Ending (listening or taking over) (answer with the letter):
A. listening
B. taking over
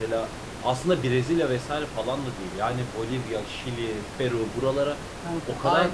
B